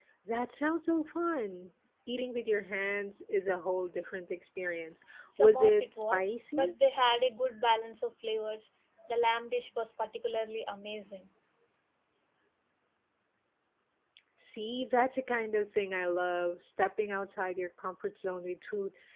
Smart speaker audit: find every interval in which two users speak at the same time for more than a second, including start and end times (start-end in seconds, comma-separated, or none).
5.4-6.7